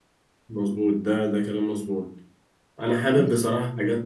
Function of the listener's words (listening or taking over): listening